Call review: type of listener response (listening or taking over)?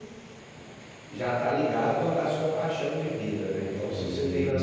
listening